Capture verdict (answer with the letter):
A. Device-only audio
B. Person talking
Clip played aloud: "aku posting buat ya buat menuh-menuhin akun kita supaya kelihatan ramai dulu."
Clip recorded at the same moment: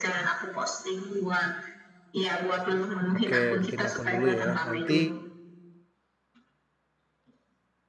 B